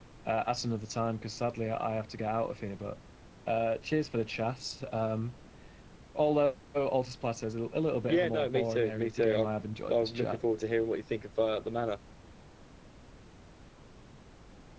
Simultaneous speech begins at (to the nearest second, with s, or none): 8 s